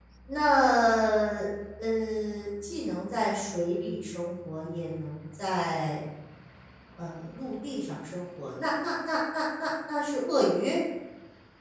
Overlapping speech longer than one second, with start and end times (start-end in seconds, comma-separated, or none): none